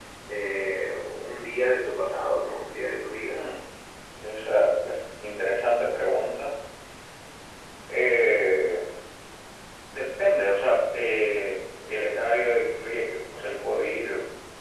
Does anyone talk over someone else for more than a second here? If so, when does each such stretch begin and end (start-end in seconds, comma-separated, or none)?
none